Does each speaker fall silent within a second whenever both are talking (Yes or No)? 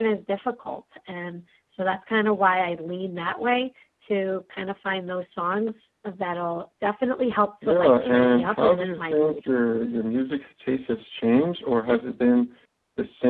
No